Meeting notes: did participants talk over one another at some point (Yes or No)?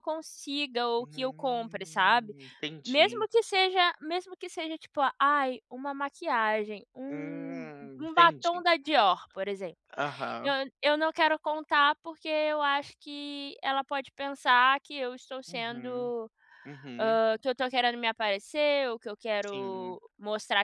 Yes